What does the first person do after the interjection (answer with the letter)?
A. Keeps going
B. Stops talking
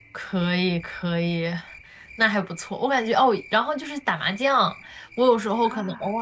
A